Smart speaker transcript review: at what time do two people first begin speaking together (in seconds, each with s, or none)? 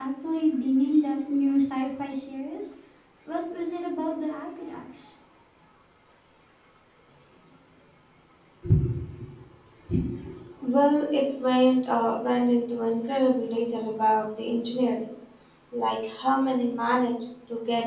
none